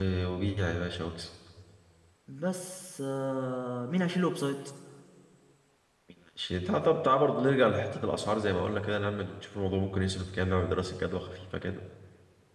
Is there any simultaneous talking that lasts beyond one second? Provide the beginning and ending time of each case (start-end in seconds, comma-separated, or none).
none